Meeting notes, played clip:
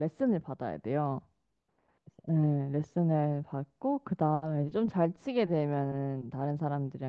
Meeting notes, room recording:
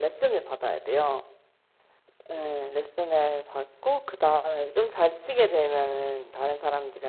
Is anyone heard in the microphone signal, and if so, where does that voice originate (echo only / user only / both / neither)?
echo only